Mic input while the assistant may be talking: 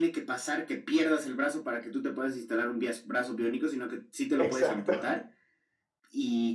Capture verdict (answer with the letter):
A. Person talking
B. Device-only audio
A